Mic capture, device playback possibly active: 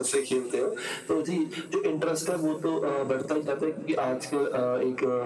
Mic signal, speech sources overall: echo only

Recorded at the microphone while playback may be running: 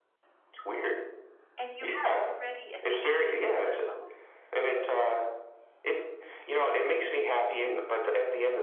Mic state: both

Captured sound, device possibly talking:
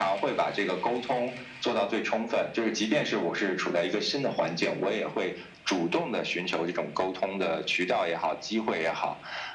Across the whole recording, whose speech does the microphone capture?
echo only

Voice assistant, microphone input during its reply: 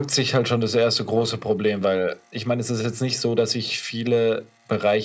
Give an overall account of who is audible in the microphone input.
echo only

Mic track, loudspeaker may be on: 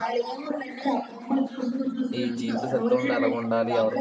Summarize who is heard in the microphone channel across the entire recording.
both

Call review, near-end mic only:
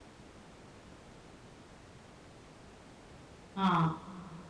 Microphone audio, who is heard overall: user only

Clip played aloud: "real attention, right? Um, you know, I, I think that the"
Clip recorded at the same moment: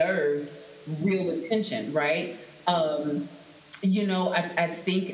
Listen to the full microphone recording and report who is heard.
echo only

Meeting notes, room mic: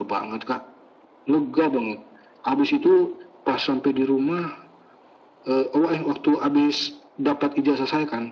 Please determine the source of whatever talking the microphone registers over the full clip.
echo only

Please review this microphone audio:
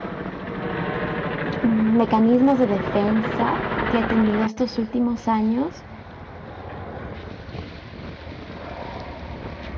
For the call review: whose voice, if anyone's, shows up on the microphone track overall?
user only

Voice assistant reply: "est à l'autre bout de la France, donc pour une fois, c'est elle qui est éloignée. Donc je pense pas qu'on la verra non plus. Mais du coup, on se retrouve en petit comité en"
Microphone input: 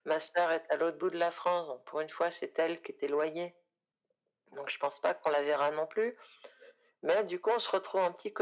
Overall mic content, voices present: echo only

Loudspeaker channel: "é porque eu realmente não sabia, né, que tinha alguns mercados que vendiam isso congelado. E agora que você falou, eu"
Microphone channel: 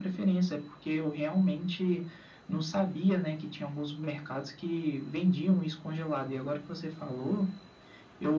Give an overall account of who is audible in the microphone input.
echo only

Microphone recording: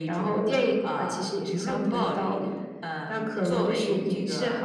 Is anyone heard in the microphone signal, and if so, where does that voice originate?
echo only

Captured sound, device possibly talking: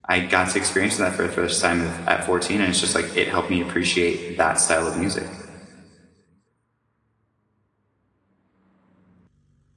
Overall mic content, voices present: user only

